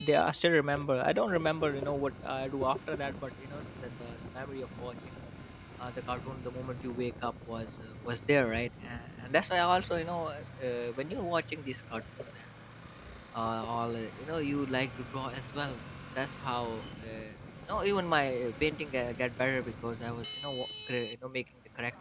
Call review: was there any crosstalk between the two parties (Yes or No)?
No